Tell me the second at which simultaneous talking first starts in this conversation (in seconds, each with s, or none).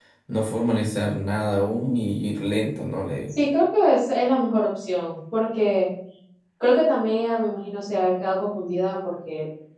none